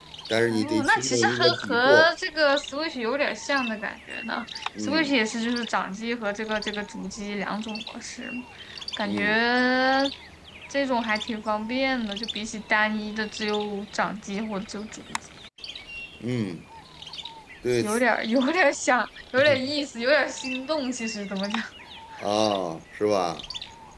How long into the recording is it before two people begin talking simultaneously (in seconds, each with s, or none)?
0.5 s